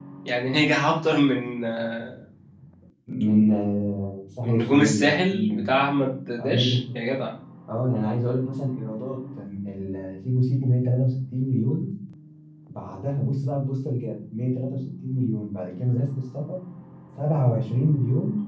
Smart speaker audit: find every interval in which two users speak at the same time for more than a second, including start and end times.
4.4-5.6

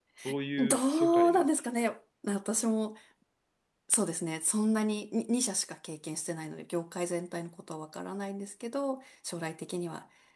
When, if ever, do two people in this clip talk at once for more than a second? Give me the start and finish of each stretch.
0.6-1.9

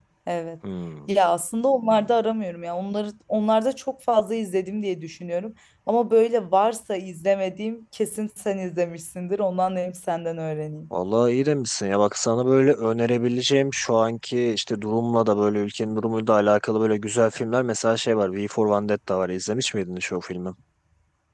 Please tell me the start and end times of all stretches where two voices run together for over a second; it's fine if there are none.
none

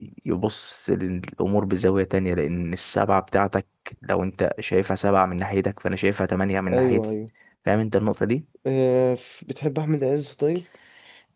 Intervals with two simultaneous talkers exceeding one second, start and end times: none

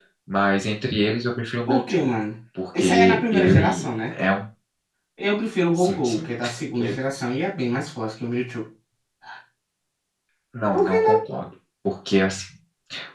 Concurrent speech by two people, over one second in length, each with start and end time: 2.8-4.1

